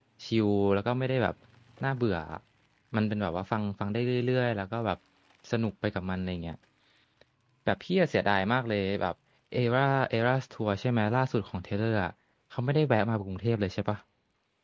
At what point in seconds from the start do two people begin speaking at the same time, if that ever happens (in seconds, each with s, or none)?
none